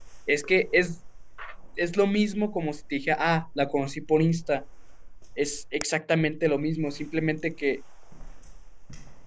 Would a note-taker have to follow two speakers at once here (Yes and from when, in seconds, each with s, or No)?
No